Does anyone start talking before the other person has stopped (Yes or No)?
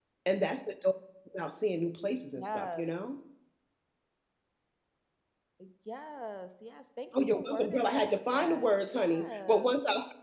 Yes